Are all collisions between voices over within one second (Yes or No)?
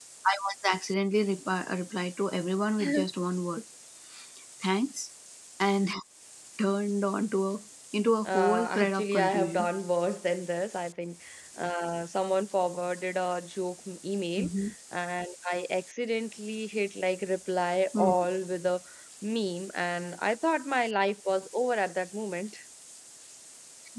No